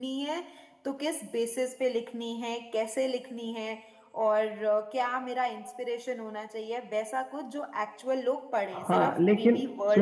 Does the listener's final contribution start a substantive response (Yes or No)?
Yes